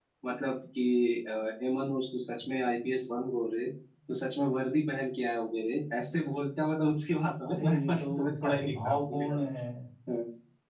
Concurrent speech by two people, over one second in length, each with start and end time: 7.4-9.3

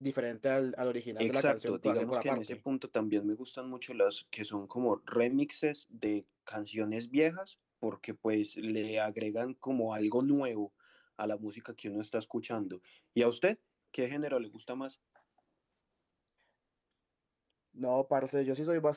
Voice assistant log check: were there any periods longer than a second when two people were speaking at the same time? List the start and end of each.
1.2-2.6

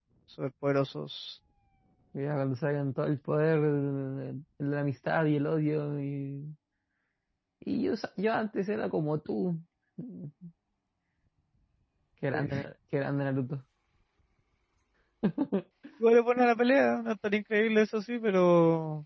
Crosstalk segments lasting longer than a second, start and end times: none

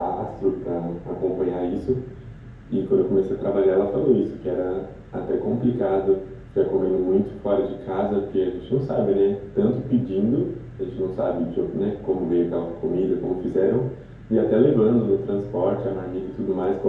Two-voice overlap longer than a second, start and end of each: none

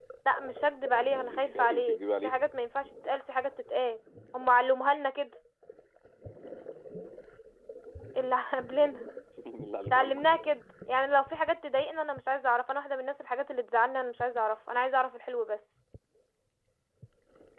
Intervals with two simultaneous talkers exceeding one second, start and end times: 1.1-2.3

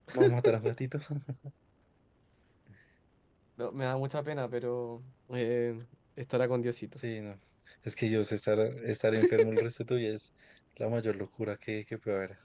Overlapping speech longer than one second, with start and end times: none

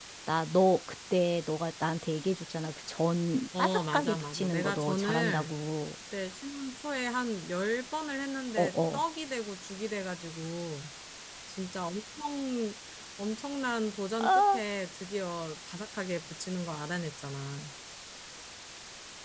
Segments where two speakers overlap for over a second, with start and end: 3.6-5.5

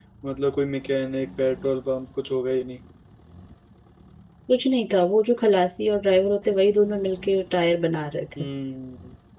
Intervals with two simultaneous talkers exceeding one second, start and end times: none

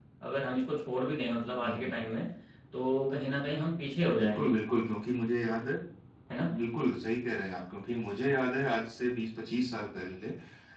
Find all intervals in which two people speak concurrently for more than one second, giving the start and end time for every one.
none

